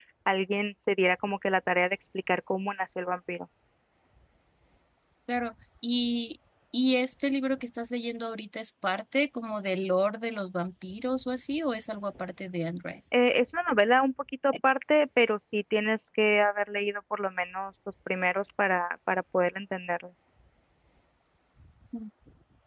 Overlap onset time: none

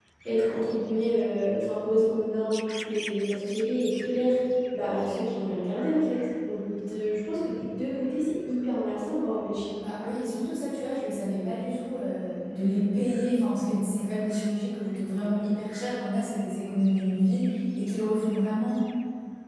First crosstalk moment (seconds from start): none

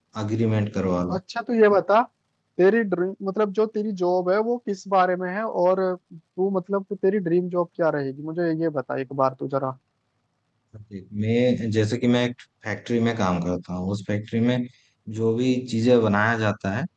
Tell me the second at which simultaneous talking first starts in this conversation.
none

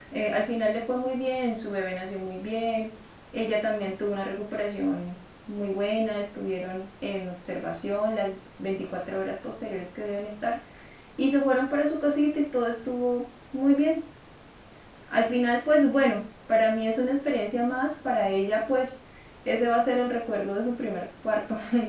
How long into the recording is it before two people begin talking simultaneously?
none

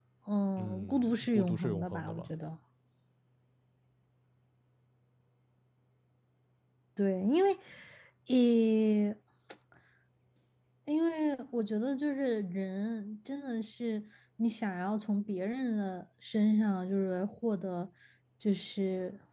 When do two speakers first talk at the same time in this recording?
0.6 s

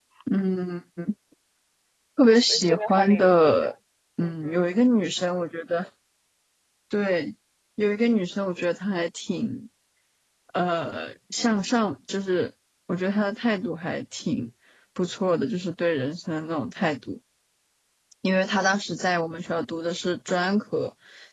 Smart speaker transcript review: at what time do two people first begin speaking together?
2.5 s

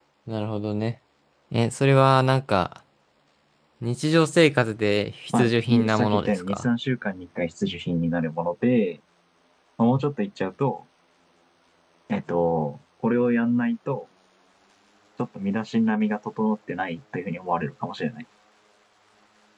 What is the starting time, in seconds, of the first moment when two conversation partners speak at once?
5.3 s

